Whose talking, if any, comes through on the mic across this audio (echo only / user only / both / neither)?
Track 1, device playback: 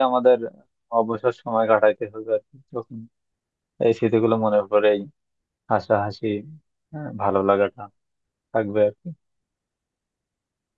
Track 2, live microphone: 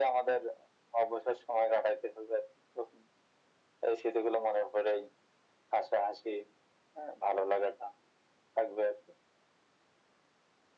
echo only